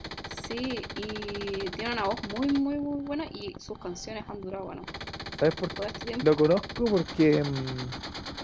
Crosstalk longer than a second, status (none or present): none